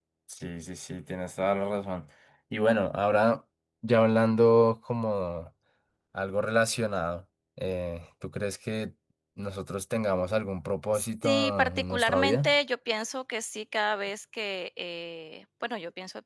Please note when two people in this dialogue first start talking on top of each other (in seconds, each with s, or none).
11.2 s